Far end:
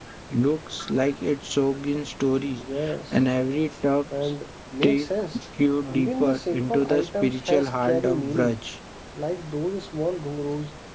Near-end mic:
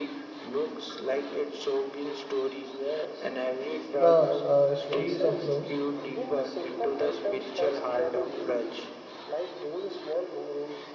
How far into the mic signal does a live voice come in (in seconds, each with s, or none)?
4.0 s